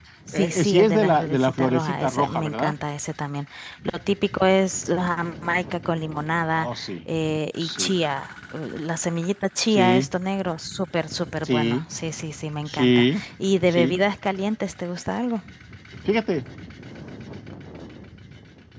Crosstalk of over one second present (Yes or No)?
Yes